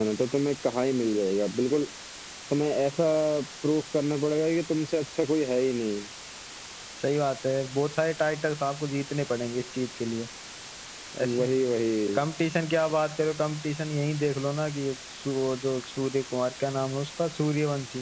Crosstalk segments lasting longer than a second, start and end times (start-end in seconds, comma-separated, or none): none